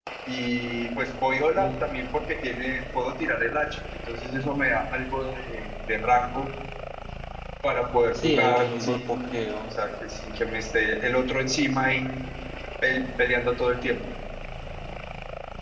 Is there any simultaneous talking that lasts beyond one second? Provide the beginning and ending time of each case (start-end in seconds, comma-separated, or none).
8.1-9.8